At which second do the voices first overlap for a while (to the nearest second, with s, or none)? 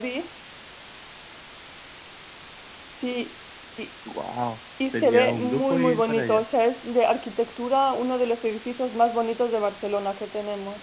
5 s